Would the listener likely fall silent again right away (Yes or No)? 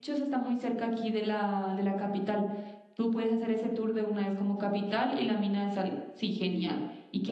No